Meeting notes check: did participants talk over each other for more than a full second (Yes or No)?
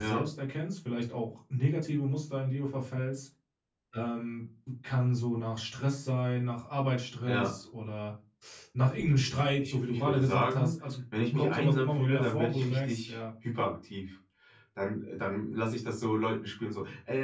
Yes